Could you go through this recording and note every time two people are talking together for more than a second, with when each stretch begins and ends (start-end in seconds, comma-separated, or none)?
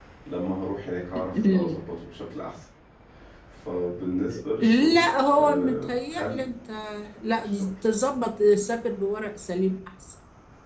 4.6-6.4